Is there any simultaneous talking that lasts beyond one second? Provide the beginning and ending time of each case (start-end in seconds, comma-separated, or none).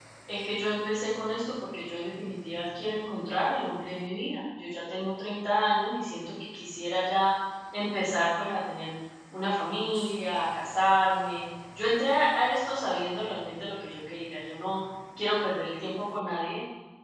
none